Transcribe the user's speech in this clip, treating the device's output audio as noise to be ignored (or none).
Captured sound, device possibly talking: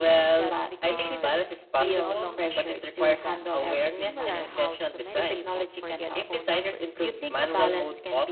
just because they no longer need them. And it's similar how too many people forget phone numbers